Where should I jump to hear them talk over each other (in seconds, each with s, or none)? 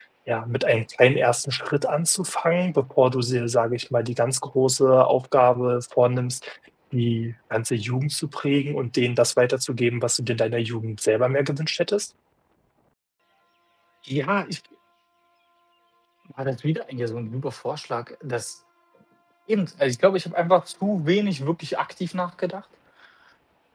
none